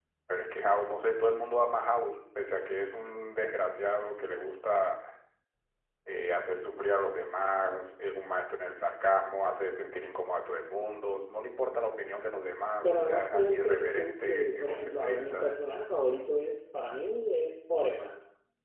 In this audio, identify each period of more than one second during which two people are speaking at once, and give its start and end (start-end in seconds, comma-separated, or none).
12.8-15.5